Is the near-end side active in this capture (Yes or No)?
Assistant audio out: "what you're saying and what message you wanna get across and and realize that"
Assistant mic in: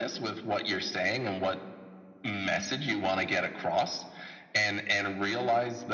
No